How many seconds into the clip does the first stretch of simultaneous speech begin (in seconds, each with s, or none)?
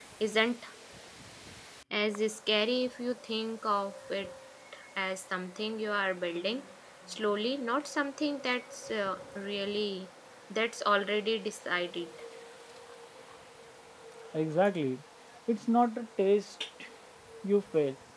none